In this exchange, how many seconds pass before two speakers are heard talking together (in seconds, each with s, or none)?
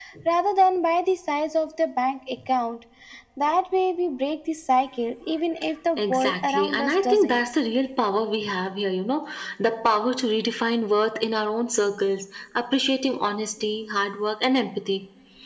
6.0 s